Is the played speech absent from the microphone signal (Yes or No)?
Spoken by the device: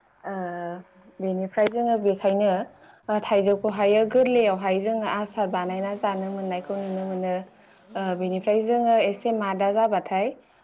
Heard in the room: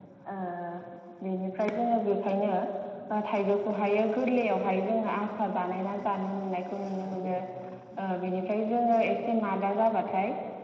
No